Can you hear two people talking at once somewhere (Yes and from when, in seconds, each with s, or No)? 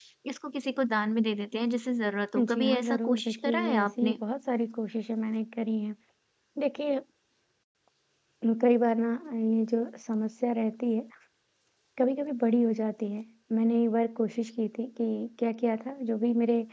Yes, from 2.3 s